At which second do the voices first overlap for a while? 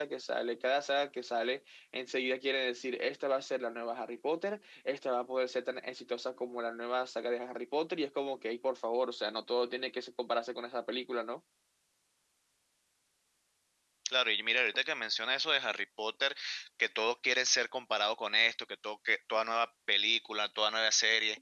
none

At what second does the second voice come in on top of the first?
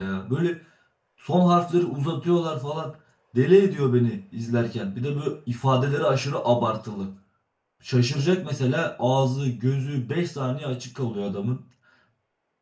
none

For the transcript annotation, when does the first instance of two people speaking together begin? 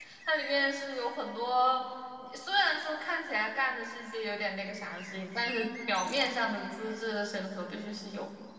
none

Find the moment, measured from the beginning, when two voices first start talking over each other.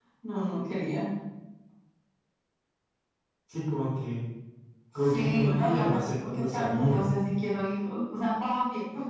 5 s

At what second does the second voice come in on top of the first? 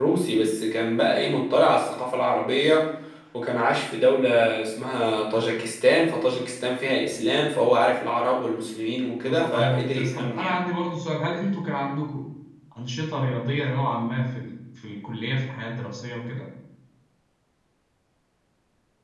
9 s

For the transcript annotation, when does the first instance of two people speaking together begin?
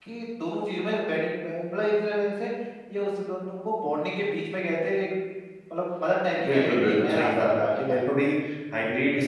6 s

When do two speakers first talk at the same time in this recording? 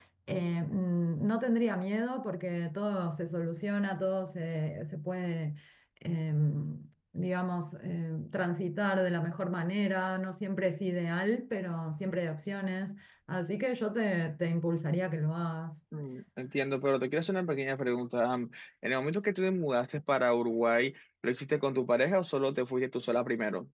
none

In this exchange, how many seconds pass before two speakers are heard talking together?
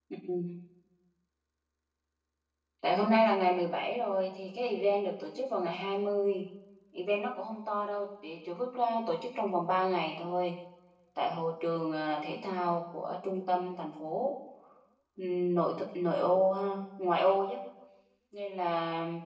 none

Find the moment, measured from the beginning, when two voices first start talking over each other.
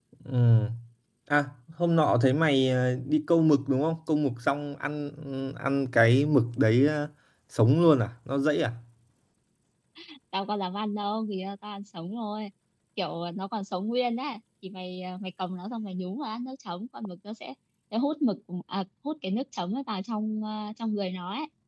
none

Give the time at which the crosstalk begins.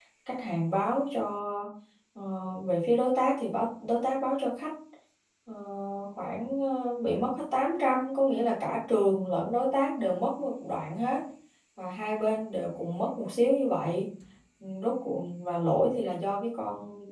none

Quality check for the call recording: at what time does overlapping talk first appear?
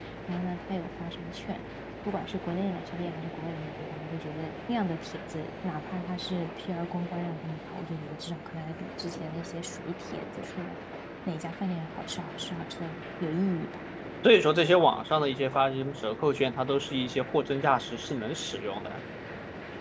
none

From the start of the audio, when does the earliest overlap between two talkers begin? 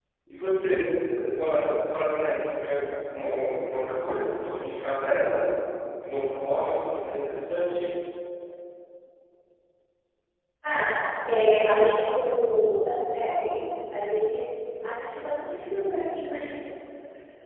none

